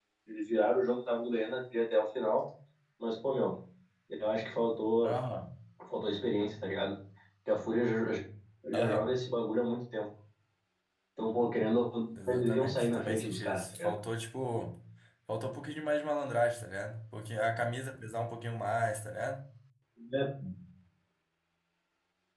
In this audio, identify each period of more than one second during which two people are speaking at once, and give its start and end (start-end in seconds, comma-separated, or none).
12.3-13.9